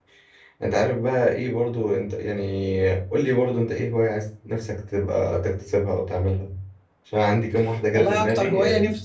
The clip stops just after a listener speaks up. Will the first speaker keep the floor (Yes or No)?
No